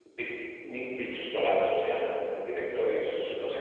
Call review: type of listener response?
listening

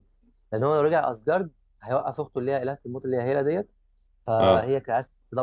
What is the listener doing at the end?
listening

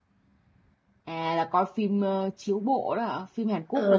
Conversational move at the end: taking over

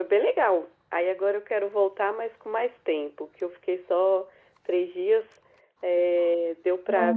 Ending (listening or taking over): listening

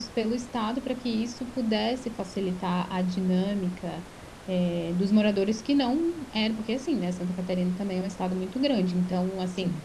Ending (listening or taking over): listening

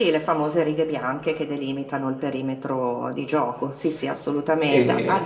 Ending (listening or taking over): listening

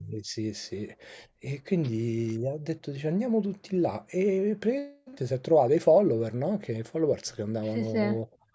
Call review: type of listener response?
listening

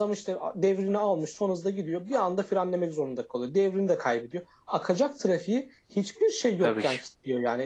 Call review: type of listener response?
listening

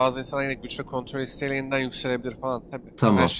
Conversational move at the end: taking over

